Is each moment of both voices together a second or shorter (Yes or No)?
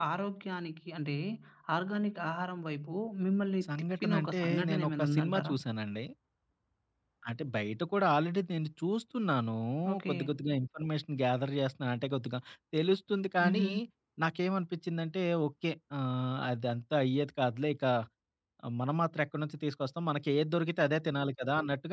No